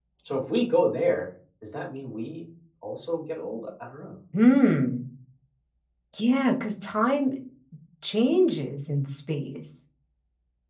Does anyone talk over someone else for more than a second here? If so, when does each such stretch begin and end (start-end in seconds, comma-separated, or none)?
none